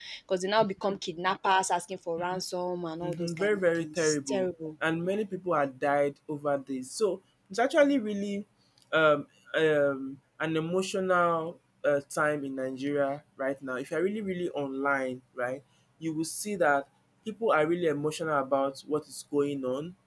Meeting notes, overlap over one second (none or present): present